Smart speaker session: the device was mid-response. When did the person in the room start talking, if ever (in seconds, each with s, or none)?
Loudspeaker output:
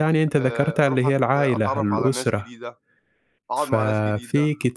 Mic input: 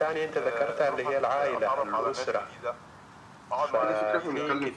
3.8 s